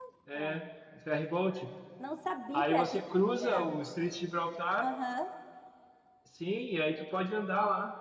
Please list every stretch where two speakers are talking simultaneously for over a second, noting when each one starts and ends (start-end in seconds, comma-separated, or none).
none